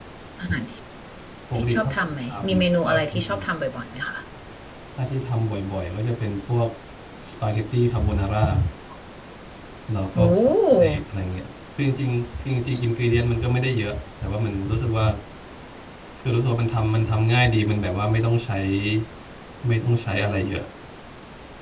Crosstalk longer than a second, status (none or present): present